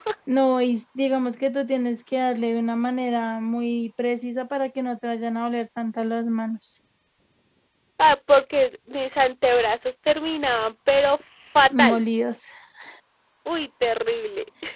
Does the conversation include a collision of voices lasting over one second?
No

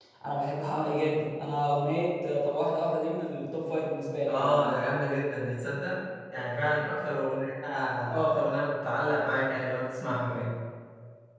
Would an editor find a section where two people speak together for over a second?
No

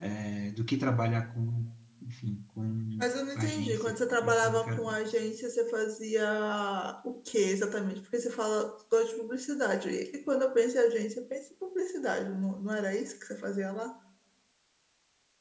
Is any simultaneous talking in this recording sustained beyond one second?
Yes, from 3.0 s

